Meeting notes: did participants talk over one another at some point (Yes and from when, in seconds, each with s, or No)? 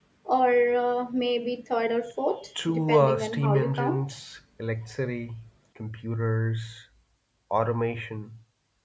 Yes, from 2.5 s